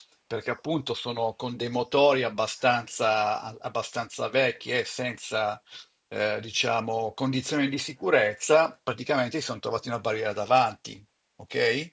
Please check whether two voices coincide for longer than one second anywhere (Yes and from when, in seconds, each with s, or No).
No